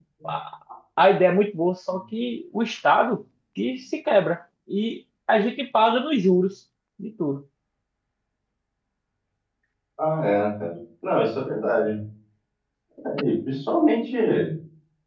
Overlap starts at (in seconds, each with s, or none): none